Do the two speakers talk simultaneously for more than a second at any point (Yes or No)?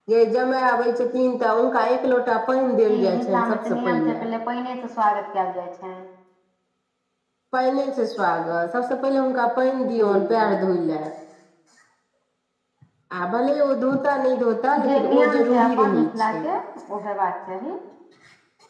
Yes